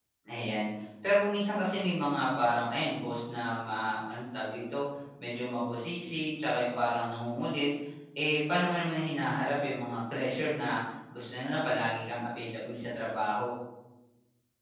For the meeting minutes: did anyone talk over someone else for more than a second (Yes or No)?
No